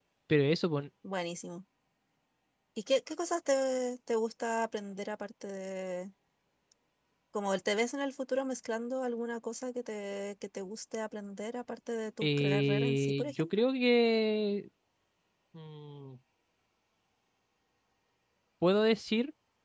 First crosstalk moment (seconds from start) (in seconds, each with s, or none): 12.2 s